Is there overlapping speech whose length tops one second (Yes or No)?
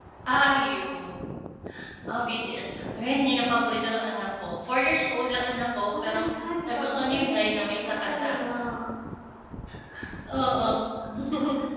Yes